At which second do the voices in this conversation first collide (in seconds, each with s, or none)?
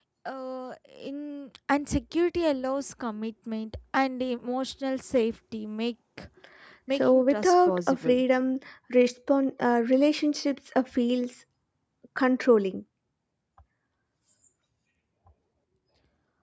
7.0 s